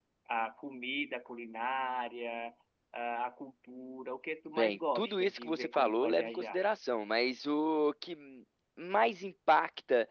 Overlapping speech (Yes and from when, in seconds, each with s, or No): Yes, from 4.5 s